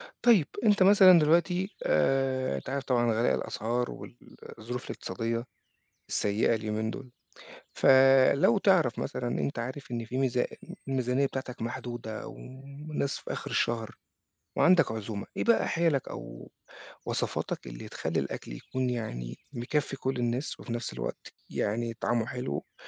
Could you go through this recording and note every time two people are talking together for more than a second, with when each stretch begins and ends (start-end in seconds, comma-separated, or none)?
none